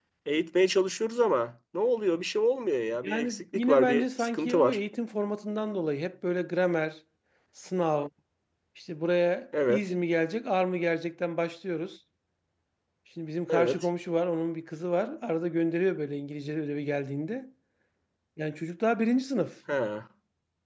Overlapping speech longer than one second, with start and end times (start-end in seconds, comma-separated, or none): 3.0-4.8